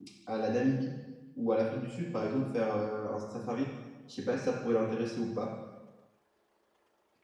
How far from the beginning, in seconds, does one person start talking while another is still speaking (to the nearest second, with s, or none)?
none